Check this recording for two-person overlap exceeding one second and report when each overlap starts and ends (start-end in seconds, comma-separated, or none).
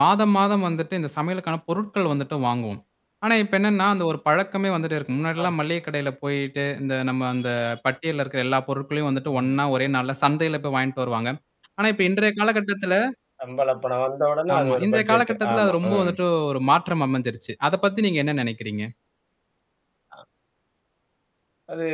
14.6-16.1